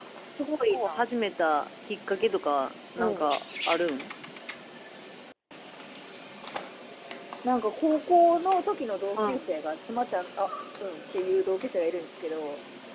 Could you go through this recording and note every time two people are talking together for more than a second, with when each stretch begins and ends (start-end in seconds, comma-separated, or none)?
none